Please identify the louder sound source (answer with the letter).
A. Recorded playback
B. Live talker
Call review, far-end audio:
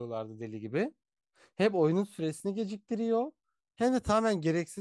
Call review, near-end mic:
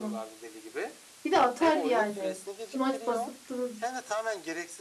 B